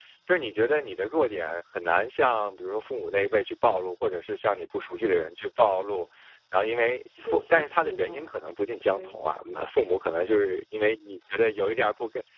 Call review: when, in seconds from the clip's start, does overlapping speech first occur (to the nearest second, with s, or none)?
7 s